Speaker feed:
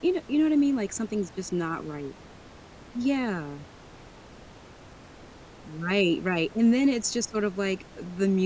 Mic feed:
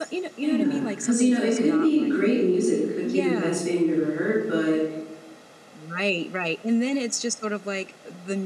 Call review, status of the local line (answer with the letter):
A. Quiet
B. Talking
B